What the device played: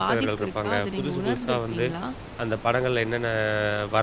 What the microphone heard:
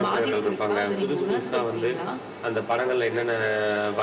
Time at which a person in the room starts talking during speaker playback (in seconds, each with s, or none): none